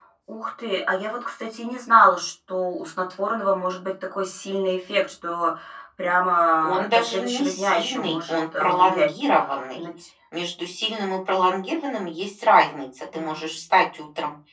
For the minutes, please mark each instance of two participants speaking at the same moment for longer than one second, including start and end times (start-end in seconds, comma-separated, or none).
6.6-9.1